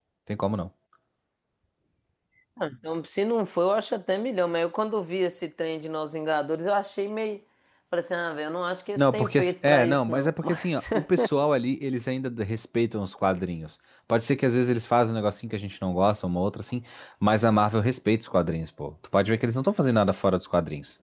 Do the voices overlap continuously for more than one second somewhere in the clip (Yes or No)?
Yes